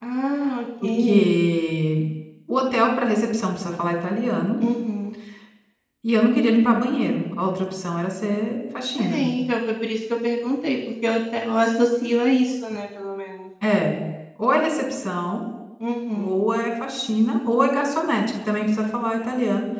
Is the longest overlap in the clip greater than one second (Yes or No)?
No